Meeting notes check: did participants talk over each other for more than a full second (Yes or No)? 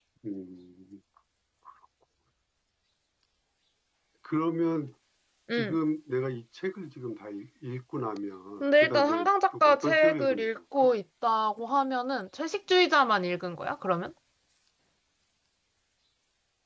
Yes